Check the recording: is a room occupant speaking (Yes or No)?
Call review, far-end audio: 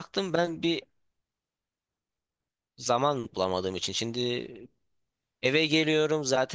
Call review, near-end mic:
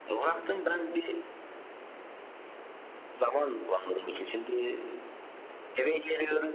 No